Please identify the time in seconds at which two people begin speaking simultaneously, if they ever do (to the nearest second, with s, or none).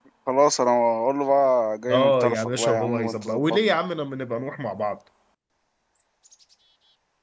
2 s